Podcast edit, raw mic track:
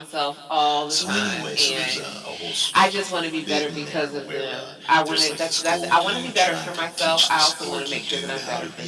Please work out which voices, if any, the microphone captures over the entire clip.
echo only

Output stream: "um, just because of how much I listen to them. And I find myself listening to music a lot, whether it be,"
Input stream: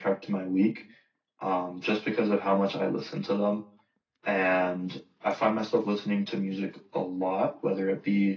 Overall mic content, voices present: echo only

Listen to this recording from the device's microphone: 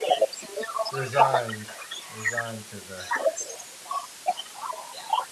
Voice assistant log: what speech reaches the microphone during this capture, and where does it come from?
both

